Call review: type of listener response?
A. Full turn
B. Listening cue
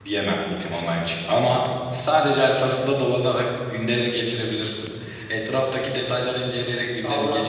A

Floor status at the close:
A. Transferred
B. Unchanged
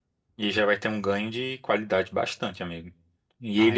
B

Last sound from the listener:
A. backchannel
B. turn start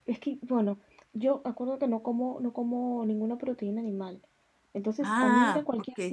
A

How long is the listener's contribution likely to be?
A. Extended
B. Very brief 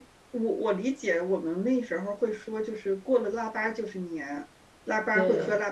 B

